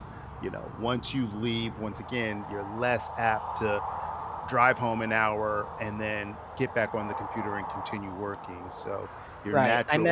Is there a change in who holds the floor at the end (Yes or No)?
Yes